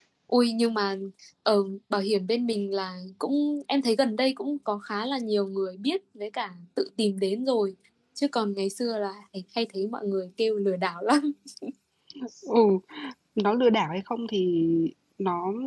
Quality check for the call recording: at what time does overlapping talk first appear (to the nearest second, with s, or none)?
none